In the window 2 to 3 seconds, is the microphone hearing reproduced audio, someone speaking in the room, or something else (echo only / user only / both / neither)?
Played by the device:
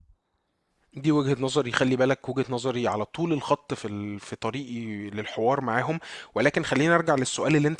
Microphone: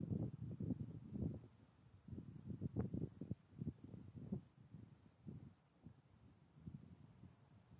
neither